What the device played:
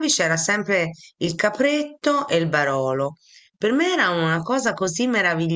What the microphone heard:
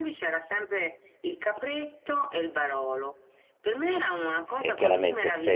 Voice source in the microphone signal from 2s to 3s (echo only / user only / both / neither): echo only